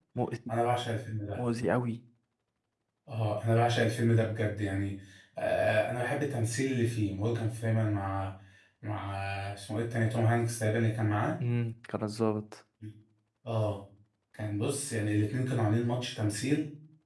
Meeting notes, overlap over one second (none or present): none